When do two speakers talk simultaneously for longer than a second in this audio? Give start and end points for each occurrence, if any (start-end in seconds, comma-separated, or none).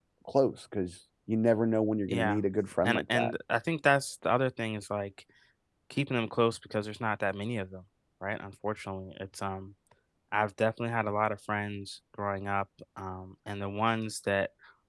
none